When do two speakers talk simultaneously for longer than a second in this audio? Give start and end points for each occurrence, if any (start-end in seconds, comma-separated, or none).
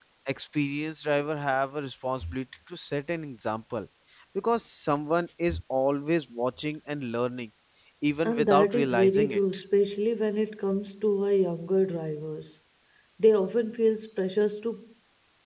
8.2-9.5